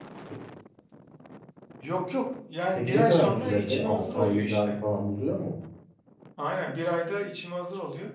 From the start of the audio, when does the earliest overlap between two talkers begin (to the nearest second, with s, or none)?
3 s